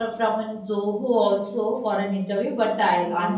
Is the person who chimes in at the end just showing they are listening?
Yes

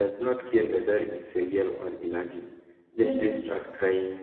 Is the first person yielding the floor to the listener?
No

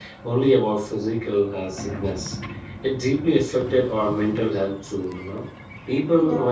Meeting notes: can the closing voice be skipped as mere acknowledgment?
Yes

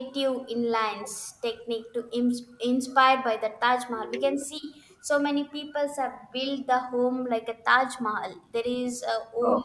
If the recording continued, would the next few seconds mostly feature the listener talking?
No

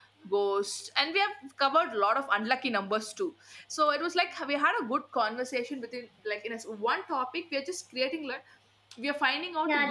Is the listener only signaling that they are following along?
No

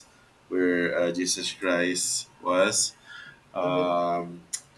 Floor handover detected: No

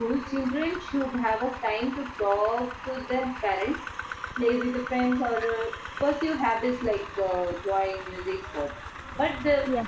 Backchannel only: Yes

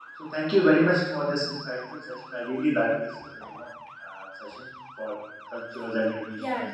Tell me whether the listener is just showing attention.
No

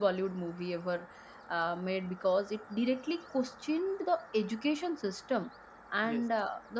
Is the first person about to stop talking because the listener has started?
No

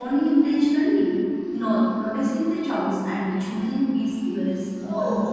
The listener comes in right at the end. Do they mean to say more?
Yes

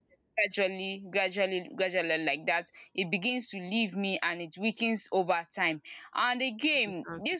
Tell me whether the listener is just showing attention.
Yes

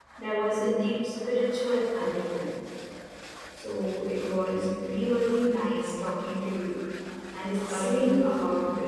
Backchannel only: Yes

